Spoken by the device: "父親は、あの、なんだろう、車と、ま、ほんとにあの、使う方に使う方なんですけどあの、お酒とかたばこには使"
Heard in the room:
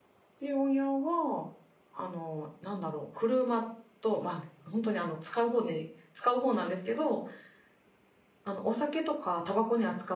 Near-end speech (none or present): none